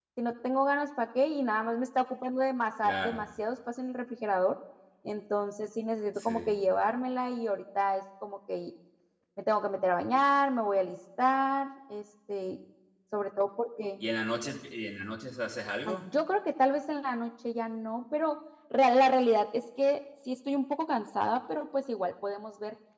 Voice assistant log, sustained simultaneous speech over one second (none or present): none